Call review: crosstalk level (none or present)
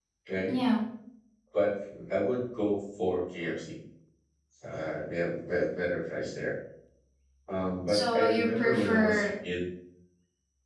present